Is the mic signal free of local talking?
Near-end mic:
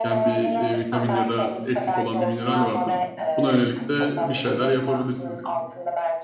No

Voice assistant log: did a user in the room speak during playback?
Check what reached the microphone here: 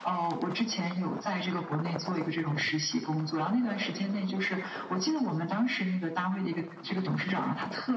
No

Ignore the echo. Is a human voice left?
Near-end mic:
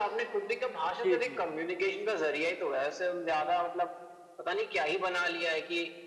Yes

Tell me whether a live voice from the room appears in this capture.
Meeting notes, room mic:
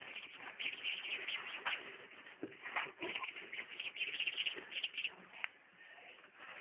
No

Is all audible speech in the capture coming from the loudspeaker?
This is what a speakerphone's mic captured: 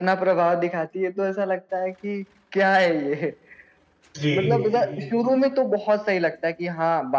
No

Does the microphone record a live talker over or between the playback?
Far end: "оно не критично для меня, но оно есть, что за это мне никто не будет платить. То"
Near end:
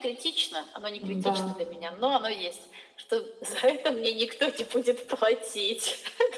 Yes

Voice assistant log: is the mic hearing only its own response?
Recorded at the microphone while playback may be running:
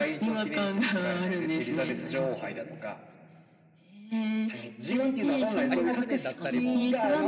No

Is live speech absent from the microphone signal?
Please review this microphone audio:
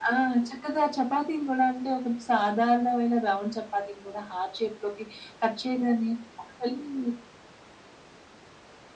Yes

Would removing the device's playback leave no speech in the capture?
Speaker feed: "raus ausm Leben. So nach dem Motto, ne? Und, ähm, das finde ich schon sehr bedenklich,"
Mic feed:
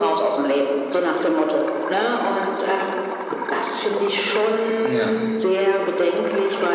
No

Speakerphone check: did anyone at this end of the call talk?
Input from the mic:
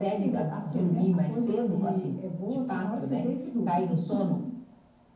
No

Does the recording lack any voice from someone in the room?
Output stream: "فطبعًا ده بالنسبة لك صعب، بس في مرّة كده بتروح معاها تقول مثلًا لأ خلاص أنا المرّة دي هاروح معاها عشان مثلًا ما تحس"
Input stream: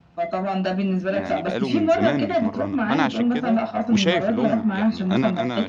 No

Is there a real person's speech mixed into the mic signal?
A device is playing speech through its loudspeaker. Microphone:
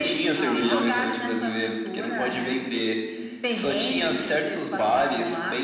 Yes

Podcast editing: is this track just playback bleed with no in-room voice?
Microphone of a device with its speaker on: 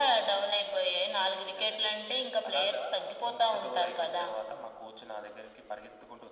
Yes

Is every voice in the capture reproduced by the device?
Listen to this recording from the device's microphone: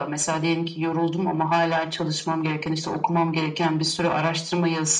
Yes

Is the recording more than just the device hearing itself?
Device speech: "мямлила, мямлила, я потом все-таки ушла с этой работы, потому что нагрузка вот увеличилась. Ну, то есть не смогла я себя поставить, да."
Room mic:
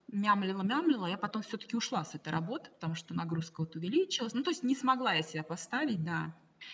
No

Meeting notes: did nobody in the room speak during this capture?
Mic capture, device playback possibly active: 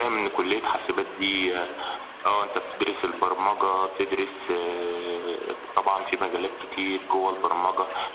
Yes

